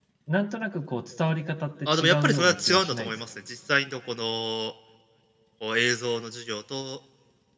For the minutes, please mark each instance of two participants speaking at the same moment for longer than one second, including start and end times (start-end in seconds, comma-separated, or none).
1.9-3.2